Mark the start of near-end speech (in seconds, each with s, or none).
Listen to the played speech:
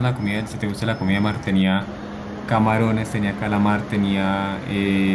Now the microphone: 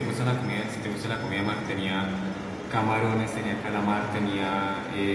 none